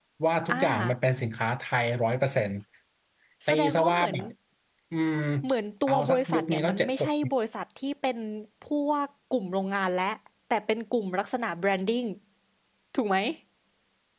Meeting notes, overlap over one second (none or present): present